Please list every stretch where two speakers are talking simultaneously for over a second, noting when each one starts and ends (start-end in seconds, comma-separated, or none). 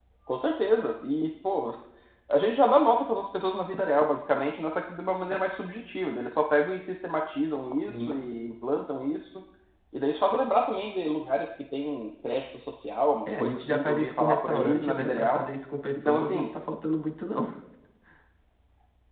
13.3-15.4